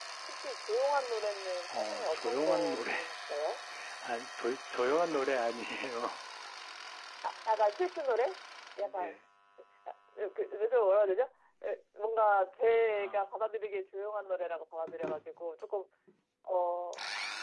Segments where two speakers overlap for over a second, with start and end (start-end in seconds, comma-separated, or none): 1.7-2.9